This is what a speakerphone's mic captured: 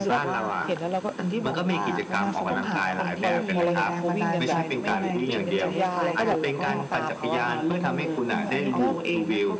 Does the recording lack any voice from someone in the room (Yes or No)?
No